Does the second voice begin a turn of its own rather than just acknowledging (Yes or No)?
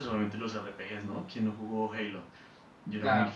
Yes